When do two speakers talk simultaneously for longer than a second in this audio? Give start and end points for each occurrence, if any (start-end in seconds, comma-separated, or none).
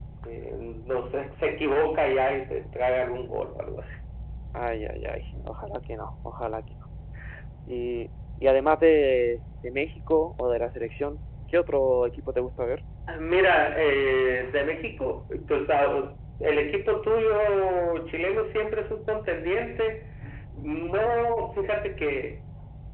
none